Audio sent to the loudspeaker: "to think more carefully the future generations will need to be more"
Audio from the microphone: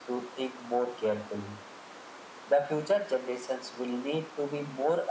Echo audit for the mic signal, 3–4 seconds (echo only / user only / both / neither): echo only